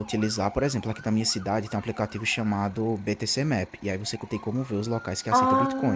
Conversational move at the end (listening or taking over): listening